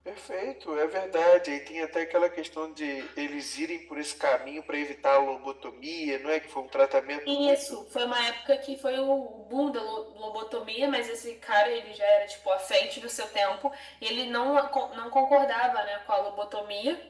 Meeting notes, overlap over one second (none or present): none